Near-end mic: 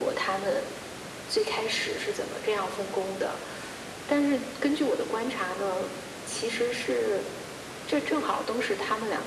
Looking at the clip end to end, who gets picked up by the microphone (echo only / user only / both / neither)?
echo only